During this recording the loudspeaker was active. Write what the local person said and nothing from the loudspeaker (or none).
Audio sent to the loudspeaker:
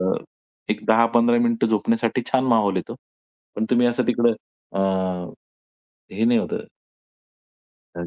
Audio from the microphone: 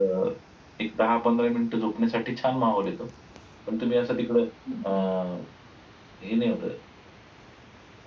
हं, हं.